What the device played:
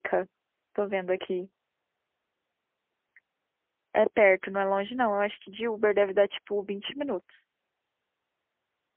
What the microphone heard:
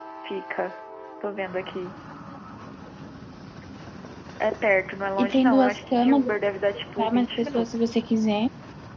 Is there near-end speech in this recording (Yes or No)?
Yes